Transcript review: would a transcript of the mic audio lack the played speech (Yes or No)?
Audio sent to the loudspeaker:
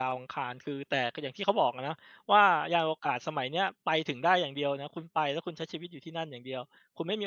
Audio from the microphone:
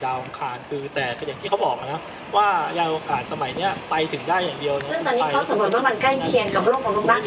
No